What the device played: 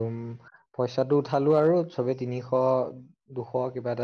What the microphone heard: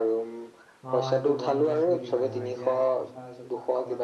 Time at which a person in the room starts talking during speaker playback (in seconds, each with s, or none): 0.9 s